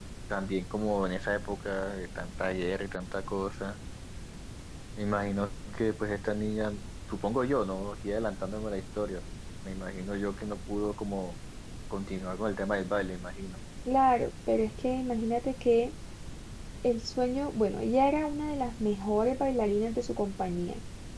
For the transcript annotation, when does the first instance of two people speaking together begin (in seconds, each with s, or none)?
none